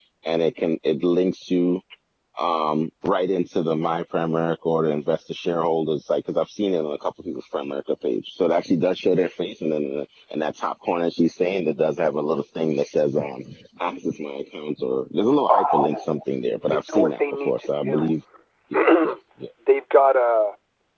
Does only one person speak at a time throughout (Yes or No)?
No